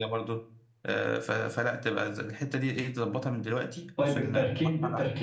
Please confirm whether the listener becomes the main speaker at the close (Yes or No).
Yes